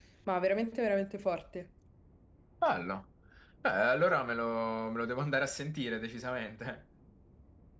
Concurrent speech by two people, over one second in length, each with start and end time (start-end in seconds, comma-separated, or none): none